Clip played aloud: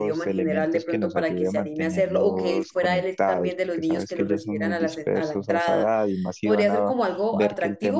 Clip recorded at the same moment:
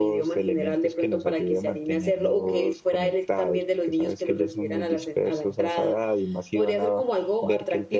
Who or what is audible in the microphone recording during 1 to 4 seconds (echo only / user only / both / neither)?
echo only